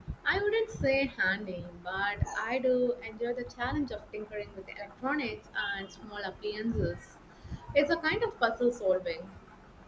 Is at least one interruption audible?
No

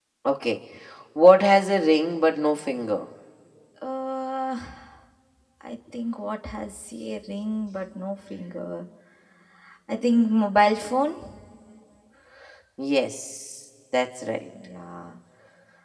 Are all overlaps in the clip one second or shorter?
Yes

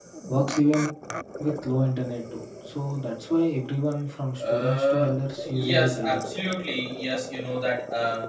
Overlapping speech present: Yes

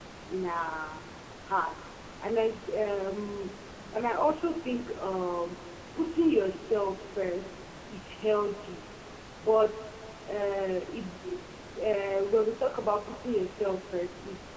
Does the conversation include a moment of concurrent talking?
No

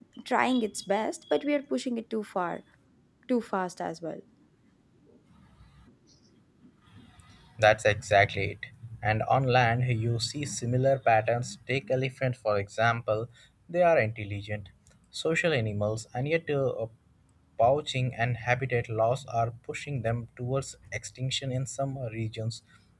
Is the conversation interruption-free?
Yes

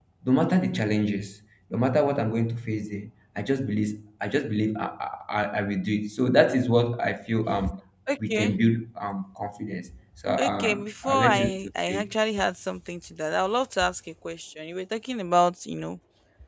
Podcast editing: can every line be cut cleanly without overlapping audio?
No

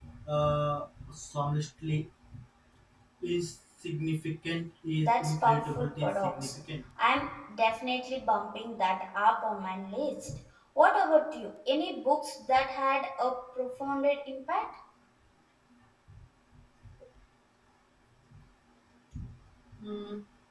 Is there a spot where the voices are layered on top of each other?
Yes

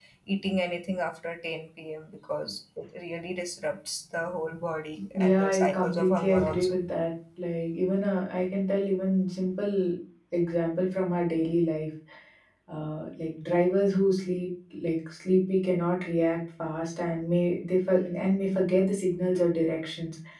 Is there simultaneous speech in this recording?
Yes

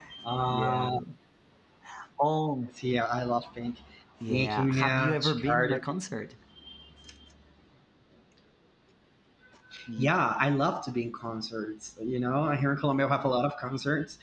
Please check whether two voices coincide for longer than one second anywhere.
Yes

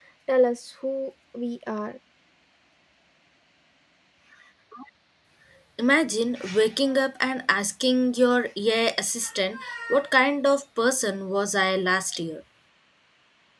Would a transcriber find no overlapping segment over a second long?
Yes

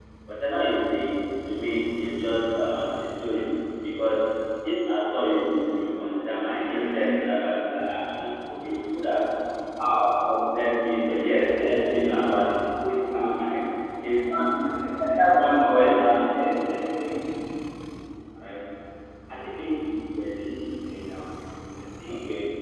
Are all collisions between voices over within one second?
No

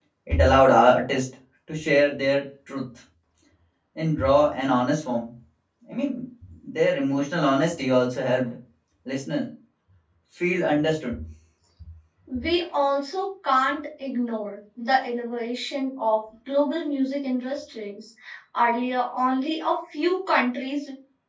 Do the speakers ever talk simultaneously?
No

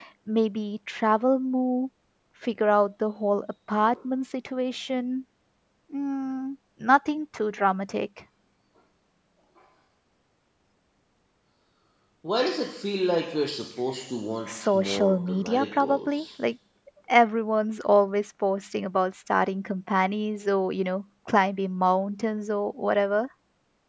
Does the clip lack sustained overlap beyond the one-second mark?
No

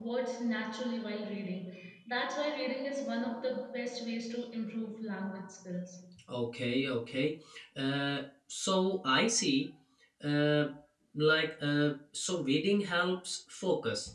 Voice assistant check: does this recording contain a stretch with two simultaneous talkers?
No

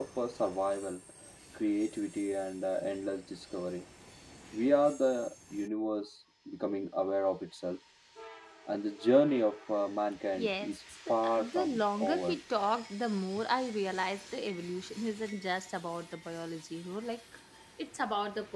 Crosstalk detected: Yes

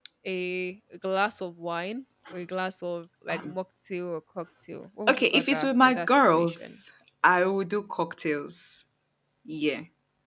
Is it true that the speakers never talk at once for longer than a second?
No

